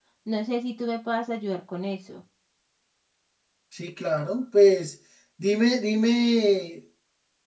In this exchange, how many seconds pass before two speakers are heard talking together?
none

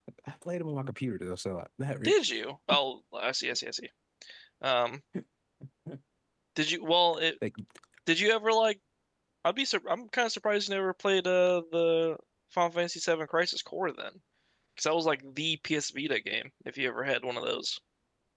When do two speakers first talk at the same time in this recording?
none

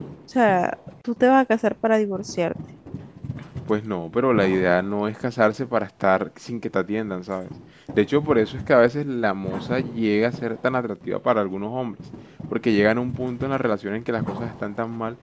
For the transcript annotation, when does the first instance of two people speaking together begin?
none

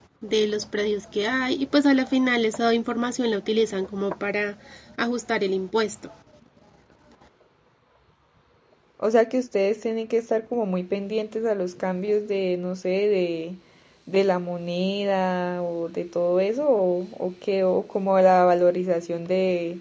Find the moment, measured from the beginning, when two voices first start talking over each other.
none

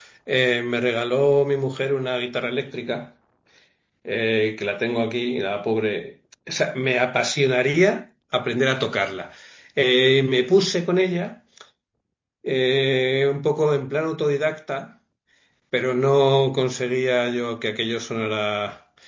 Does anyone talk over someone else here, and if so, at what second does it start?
none

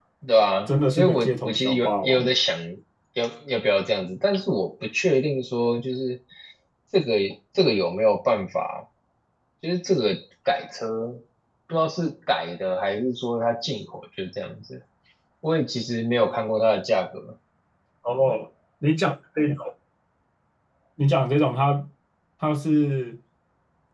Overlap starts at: 0.7 s

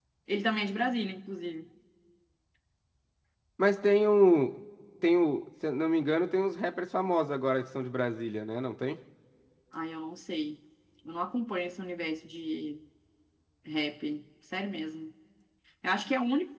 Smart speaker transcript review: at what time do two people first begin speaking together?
none

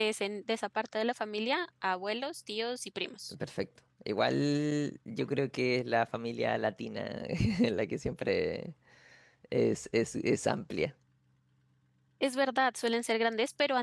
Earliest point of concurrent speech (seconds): none

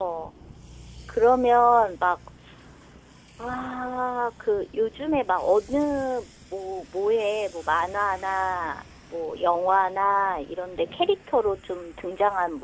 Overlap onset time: none

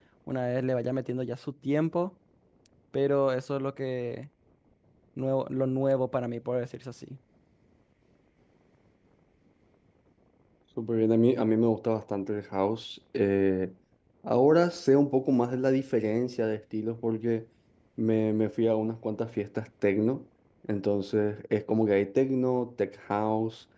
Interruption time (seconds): none

